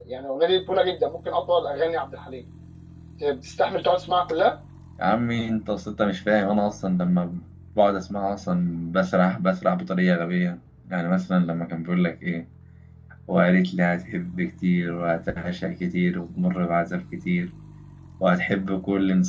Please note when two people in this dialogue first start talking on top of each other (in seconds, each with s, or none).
none